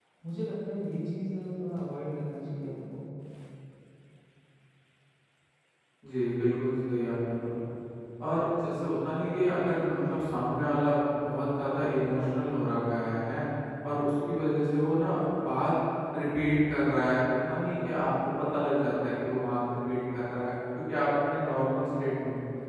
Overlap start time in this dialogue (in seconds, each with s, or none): none